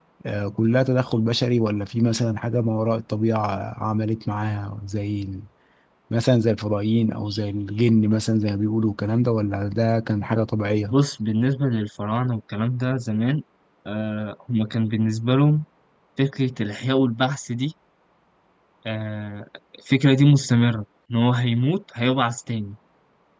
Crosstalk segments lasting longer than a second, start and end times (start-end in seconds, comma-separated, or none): none